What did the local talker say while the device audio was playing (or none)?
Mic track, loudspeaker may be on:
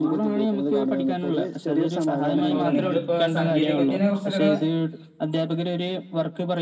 അപ്പൊ നിങ്ങളിപ്പോ സാങ്കേതിക വിദ്യനെ കുർച്ചൊക്കെക്കാ